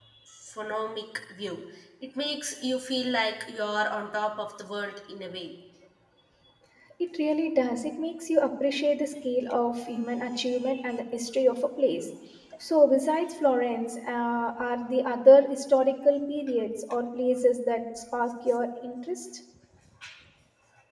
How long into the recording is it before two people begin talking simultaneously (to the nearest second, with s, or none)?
none